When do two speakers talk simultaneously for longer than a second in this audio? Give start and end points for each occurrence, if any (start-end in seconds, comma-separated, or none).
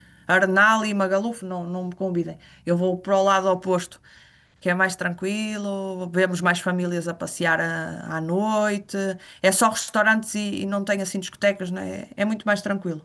none